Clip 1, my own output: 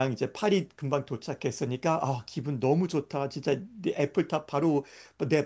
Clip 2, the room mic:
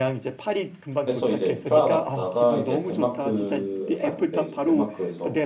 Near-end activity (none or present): present